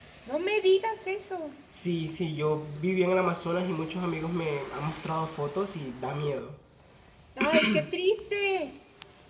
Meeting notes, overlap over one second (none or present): none